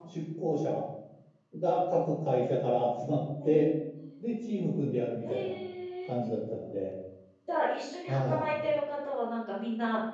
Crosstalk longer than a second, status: none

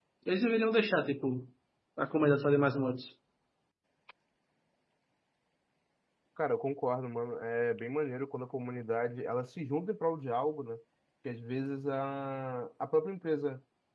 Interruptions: none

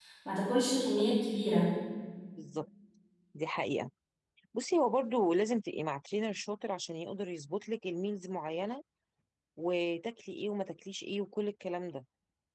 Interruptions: none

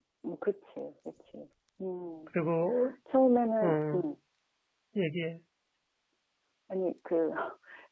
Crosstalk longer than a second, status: none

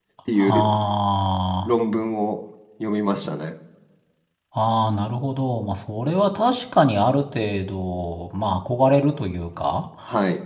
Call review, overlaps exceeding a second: none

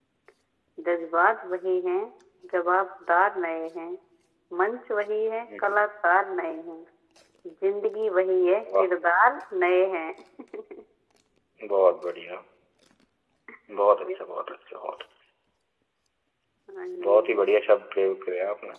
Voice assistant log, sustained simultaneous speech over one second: none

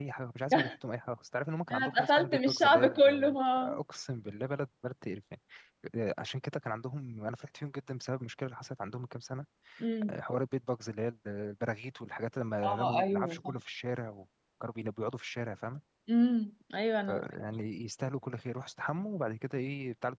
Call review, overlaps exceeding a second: present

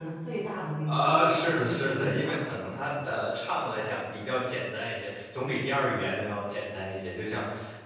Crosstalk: present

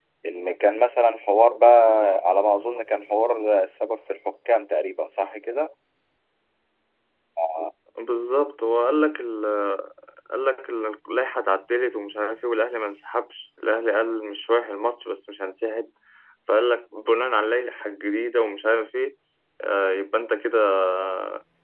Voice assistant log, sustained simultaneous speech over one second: none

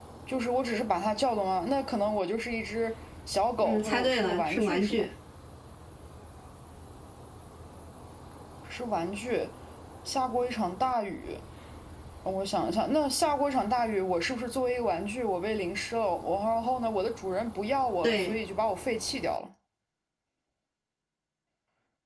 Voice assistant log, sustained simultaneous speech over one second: present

